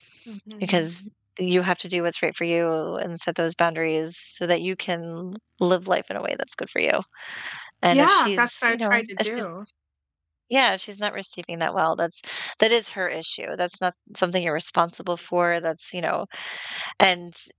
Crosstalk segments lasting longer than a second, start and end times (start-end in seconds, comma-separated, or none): 7.9-9.5